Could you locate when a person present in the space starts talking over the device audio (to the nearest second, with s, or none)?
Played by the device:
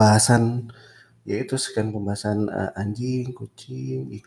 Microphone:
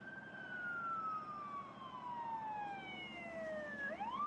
none